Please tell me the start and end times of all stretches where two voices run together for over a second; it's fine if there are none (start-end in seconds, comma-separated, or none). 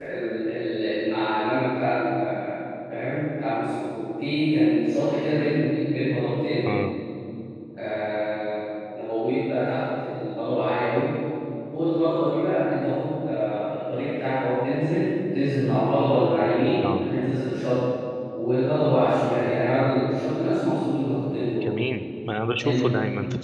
none